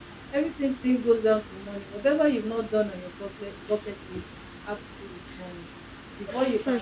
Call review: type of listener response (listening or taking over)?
listening